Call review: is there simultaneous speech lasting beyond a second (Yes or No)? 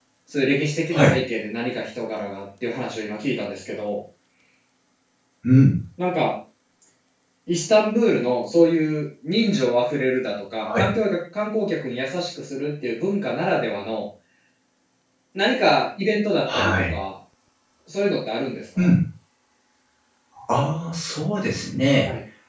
No